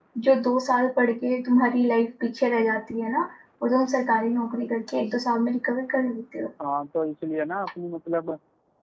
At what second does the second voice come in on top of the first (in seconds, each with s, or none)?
none